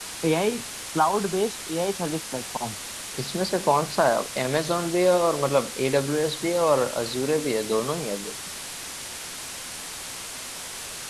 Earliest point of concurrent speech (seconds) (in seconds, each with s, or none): none